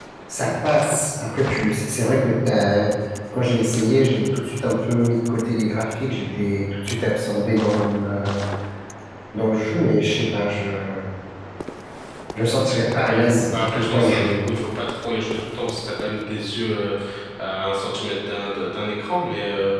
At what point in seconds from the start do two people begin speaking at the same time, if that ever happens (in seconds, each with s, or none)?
13.0 s